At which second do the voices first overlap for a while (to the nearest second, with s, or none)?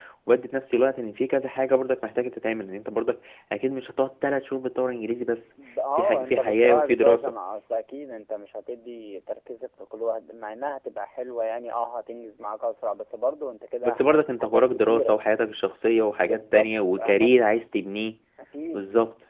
6 s